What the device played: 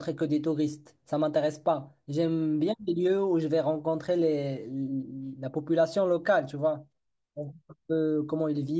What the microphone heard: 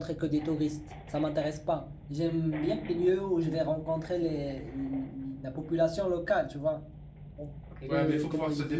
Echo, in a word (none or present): present